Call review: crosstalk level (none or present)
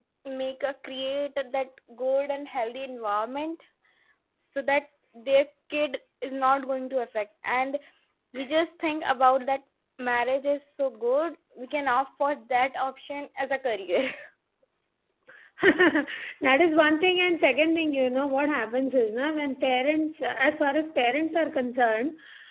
none